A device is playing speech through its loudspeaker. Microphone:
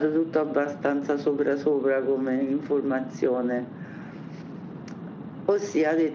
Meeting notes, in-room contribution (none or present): none